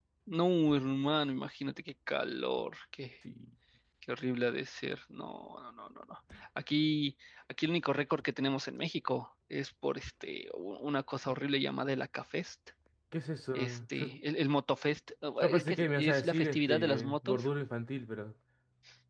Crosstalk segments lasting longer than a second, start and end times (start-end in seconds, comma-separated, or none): 15.4-17.5